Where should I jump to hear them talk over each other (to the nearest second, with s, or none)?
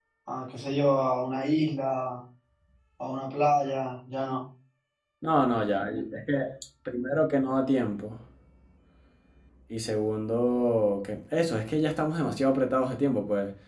none